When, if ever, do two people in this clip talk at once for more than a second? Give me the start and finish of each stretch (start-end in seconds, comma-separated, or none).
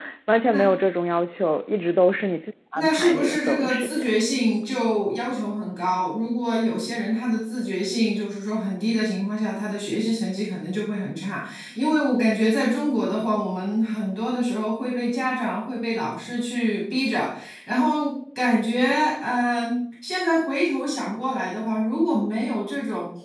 2.8-4.1